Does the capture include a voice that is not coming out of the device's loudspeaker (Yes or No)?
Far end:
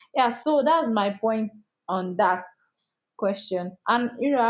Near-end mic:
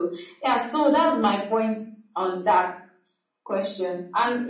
No